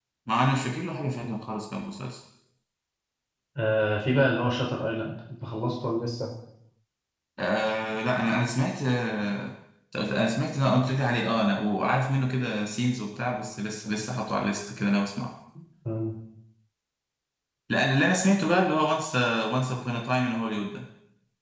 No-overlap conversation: Yes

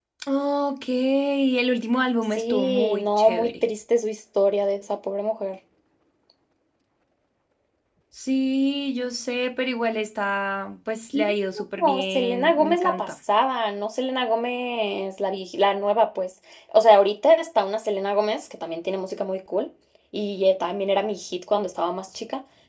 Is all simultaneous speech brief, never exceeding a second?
No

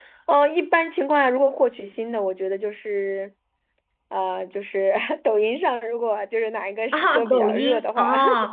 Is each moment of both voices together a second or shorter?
No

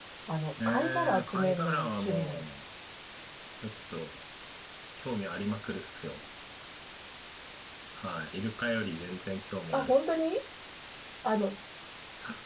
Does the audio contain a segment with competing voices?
Yes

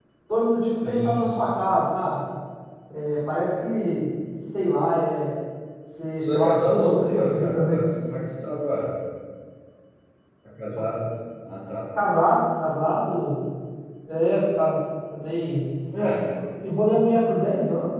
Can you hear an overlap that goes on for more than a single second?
Yes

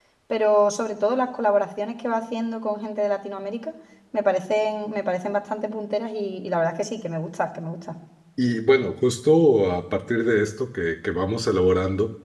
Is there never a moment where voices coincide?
Yes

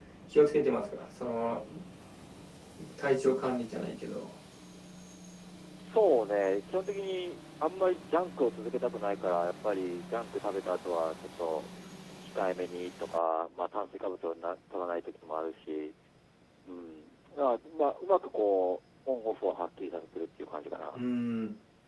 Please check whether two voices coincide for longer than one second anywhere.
No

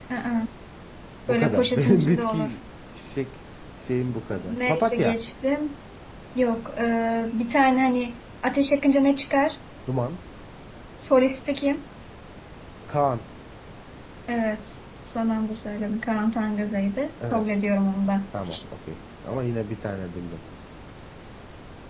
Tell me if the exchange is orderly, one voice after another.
No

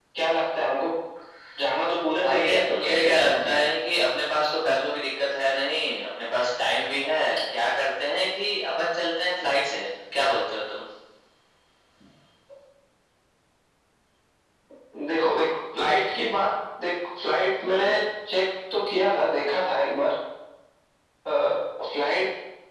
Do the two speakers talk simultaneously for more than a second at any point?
Yes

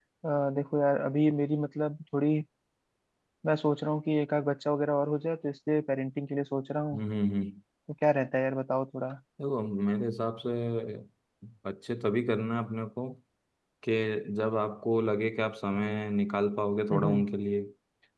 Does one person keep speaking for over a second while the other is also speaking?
No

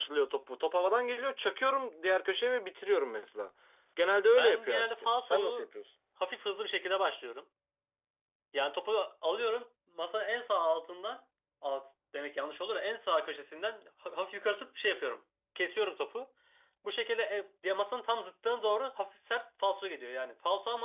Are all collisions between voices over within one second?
No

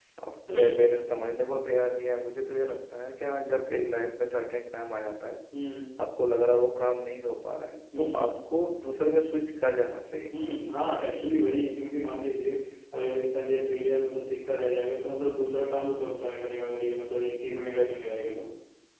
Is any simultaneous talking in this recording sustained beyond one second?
No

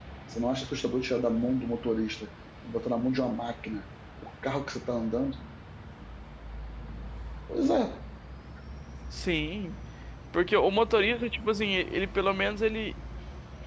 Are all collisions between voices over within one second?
Yes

